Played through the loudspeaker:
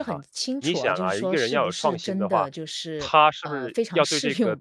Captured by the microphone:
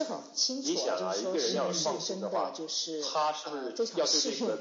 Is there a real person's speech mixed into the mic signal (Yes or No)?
Yes